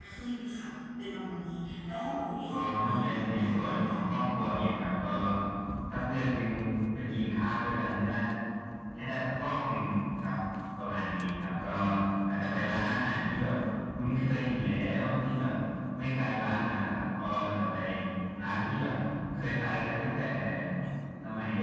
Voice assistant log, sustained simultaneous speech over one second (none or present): present